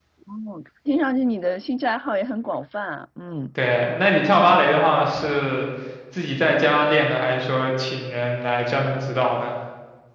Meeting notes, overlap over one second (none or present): none